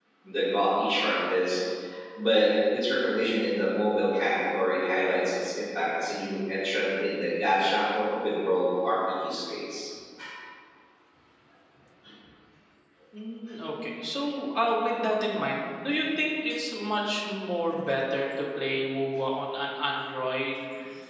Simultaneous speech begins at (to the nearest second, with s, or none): none